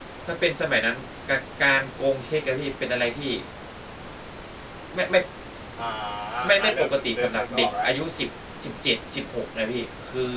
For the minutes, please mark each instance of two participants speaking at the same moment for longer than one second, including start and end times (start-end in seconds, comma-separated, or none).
6.6-8.1